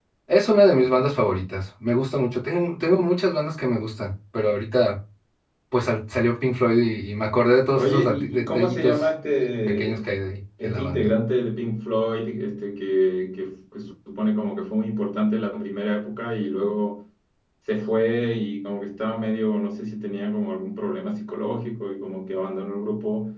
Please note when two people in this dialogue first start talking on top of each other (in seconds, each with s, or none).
7.7 s